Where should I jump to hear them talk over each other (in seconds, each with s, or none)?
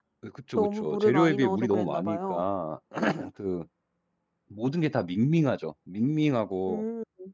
0.6 s